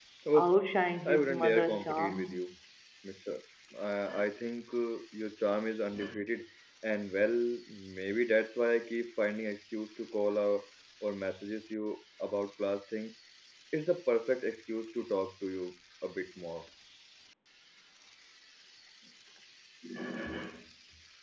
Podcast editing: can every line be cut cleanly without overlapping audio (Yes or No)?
No